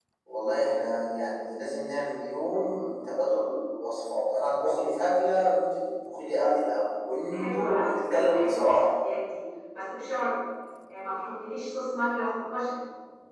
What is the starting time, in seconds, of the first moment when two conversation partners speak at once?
7.3 s

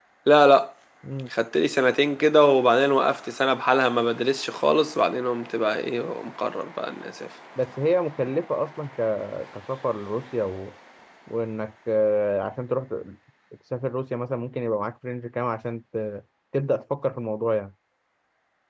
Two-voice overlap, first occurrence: none

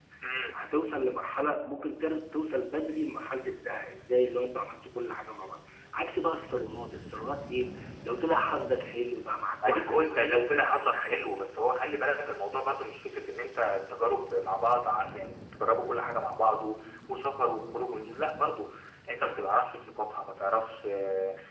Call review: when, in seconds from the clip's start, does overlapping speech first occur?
9.6 s

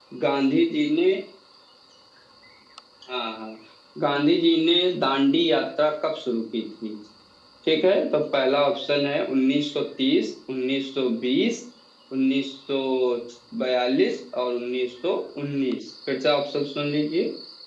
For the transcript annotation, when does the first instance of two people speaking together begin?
none

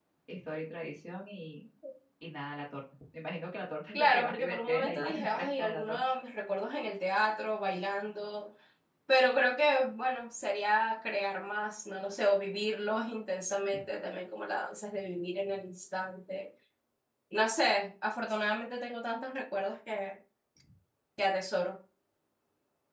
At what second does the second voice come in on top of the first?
3.9 s

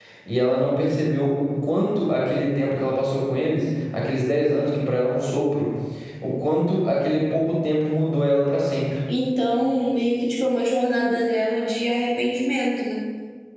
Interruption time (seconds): none

